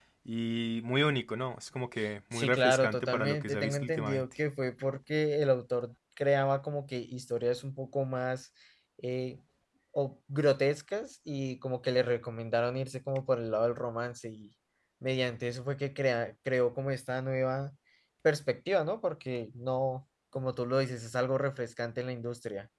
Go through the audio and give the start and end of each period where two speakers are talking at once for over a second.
2.3-4.2

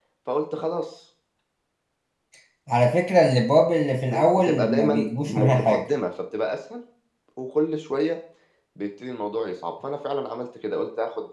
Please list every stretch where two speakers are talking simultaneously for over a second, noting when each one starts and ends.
4.1-5.9

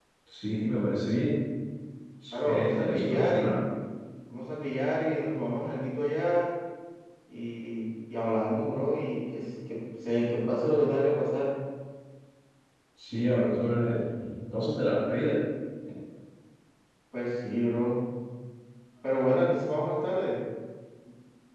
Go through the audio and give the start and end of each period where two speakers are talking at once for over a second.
2.3-3.5

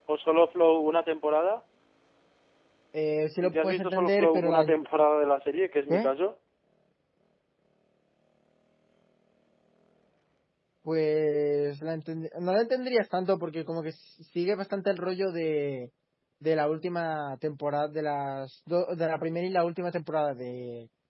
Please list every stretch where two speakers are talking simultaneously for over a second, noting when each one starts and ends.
3.4-4.6

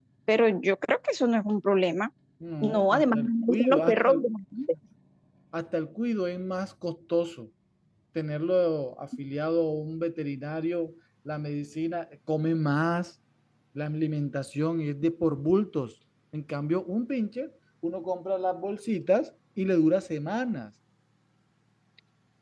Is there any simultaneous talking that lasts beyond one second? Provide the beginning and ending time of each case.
2.6-4.2

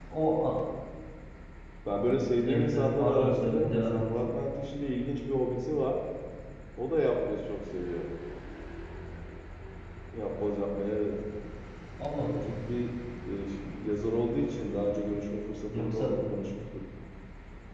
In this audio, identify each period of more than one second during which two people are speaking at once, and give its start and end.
2.4-4.1

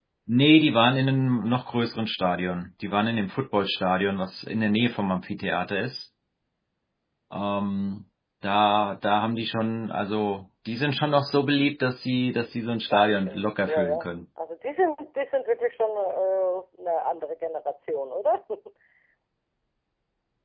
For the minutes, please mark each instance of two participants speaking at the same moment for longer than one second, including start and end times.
12.8-14.1

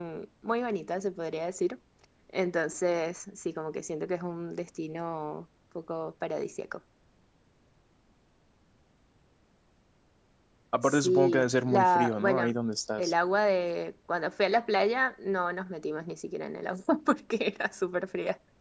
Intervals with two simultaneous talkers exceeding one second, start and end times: 10.8-12.5

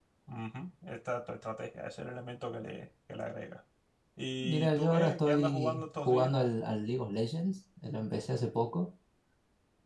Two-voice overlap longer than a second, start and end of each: 4.4-6.3

